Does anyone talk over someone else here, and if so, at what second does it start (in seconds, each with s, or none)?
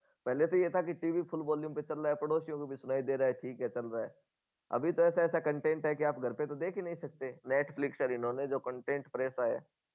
none